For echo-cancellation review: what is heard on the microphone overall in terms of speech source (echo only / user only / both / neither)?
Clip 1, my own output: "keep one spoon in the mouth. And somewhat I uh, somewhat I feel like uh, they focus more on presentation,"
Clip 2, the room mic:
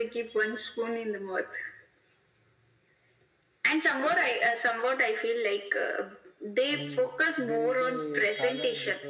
both